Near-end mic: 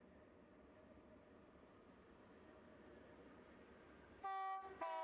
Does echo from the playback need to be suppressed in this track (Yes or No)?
No